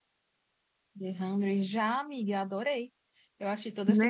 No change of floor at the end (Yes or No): Yes